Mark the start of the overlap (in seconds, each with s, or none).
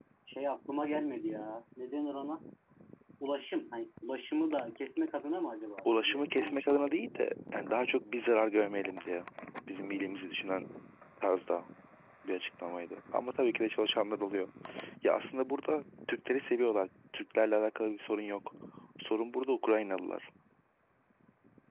5.8 s